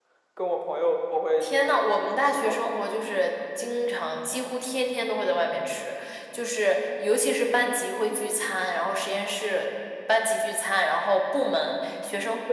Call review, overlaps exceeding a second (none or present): present